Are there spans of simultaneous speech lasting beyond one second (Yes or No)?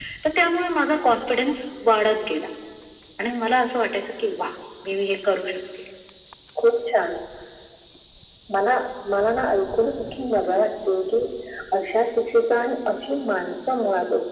No